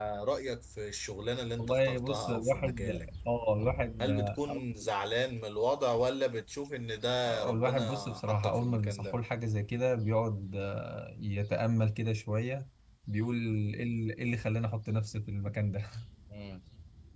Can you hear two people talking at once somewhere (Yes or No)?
Yes